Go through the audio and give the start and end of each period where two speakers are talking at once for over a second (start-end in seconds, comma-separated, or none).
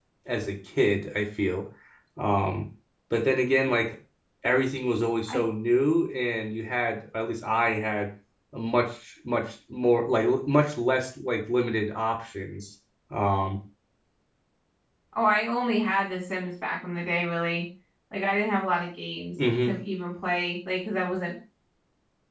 none